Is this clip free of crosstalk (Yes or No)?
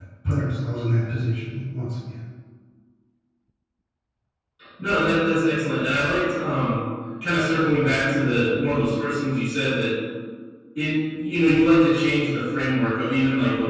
Yes